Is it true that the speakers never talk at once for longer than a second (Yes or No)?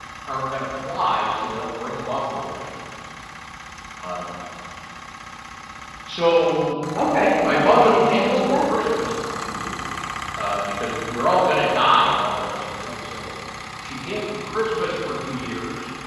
No